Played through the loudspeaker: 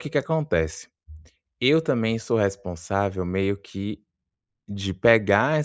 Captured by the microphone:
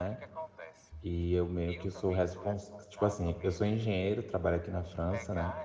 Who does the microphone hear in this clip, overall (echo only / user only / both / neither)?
both